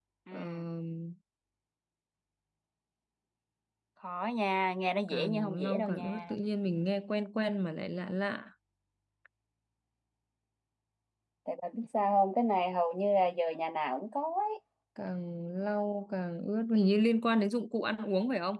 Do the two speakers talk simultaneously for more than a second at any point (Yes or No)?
Yes